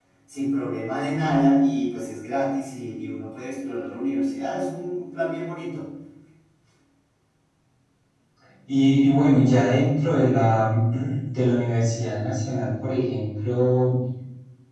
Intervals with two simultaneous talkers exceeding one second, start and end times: none

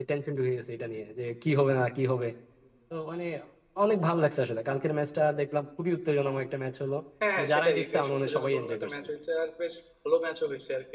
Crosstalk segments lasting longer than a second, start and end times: 7.4-8.9

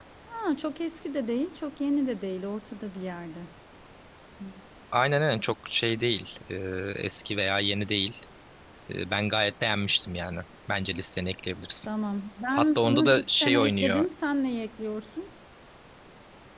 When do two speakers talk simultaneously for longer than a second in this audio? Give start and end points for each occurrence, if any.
12.5-14.0

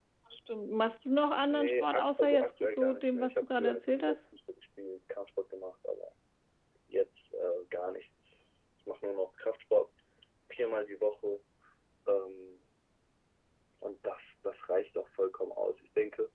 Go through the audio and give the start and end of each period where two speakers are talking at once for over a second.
1.5-4.2

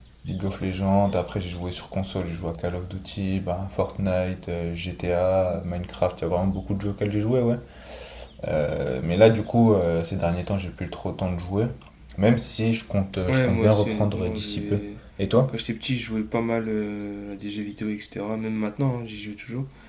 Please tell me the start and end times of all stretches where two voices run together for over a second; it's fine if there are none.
13.3-14.8

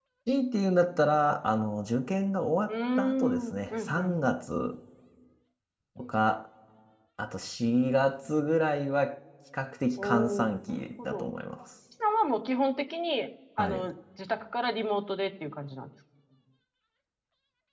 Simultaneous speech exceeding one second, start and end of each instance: 2.7-4.2, 10.0-11.3

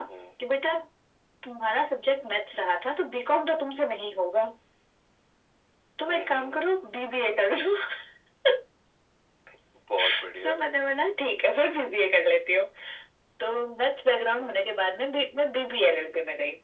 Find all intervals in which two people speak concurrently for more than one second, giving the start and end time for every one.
none

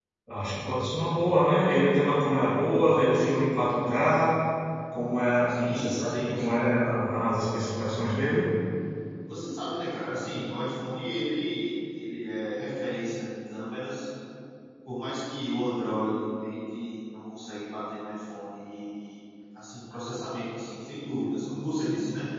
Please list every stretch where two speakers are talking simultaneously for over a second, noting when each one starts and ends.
5.5-6.7

